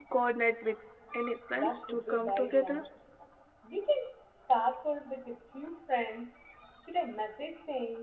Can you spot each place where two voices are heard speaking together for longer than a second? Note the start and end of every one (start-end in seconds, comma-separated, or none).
1.6-2.8